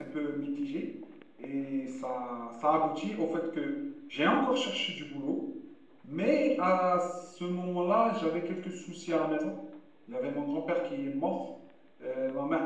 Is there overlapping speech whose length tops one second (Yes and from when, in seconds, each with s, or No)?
No